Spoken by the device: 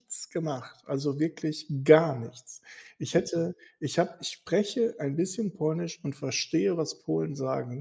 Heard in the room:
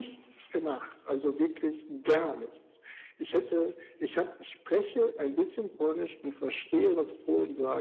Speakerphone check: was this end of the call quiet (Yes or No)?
Yes